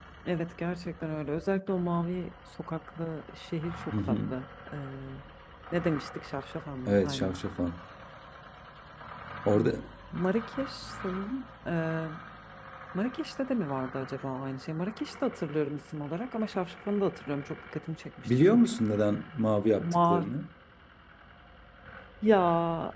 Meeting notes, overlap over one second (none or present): none